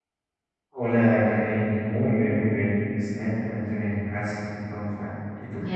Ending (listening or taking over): taking over